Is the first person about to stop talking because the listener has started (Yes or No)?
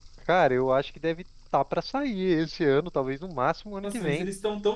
Yes